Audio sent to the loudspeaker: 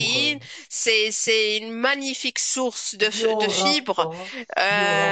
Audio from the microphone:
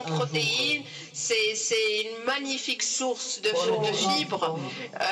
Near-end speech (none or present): present